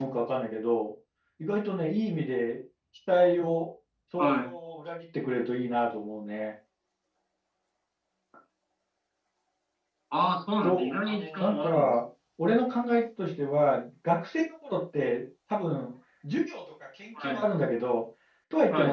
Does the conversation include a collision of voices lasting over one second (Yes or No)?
Yes